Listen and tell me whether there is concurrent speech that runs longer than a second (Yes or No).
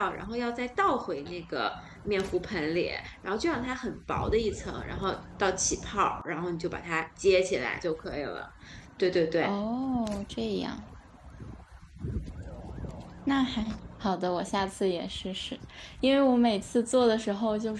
No